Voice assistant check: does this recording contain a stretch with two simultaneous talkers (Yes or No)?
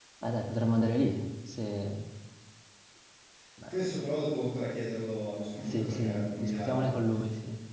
Yes